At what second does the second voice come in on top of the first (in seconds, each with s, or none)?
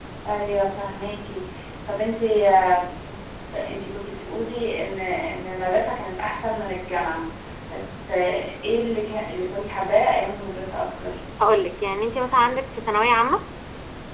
none